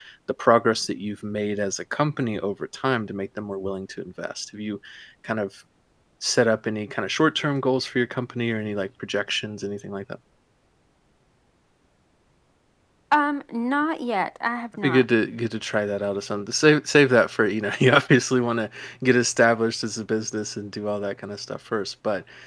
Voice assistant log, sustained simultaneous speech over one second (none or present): none